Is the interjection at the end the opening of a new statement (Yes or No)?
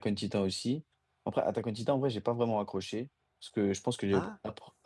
No